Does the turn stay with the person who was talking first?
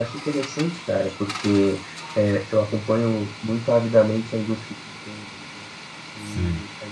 No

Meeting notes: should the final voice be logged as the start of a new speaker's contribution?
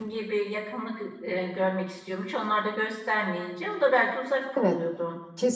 Yes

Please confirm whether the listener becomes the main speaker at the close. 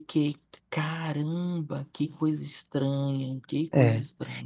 Yes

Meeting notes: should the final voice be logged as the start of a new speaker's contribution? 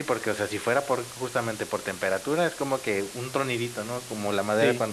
No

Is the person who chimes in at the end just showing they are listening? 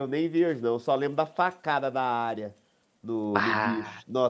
Yes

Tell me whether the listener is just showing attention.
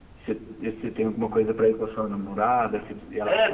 No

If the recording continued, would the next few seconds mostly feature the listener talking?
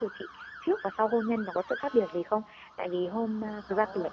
No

